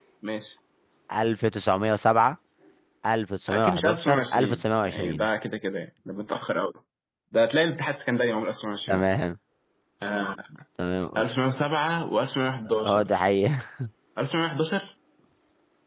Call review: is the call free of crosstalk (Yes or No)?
No